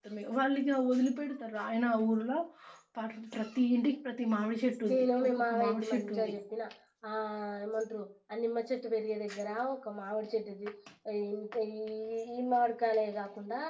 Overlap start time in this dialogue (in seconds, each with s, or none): 4.9 s